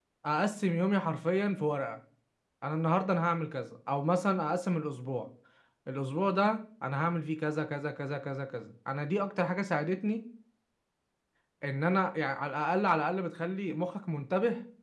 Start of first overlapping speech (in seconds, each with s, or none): none